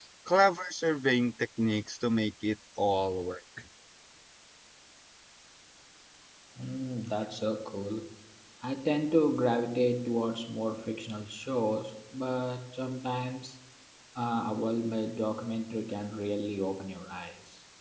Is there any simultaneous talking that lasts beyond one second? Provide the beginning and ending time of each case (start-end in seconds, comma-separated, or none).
none